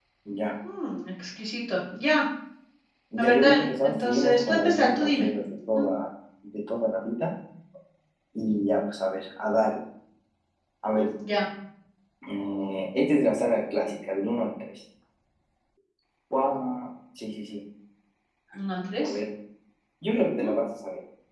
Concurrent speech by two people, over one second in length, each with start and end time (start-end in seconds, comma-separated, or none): 3.2-5.3